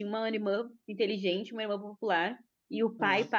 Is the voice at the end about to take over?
No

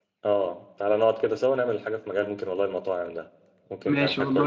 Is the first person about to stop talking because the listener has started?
Yes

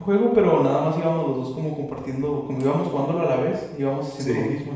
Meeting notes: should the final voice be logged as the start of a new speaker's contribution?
No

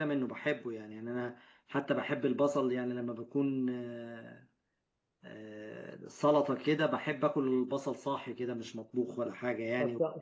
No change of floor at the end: No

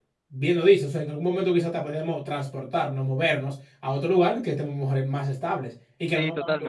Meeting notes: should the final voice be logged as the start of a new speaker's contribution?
Yes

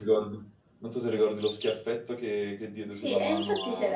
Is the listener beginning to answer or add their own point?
Yes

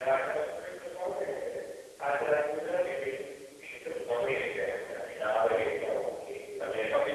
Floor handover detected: Yes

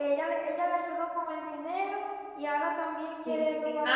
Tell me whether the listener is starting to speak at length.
Yes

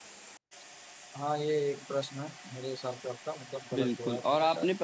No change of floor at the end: No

